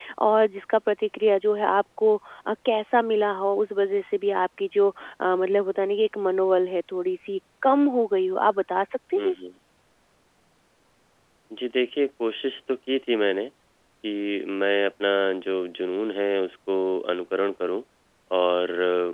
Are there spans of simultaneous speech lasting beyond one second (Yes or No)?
No